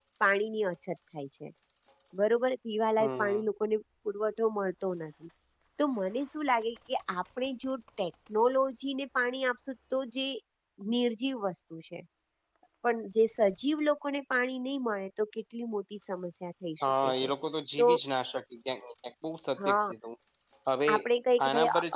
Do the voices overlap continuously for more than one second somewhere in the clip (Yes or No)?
No